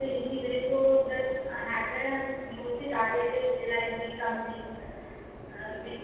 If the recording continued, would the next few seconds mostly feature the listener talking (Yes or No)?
Yes